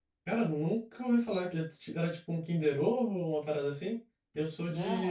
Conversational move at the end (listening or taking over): listening